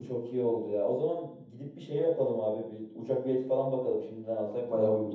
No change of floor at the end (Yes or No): No